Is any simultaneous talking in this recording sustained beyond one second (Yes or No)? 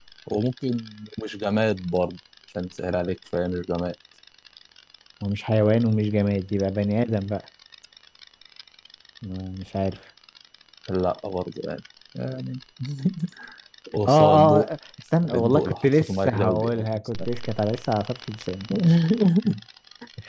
Yes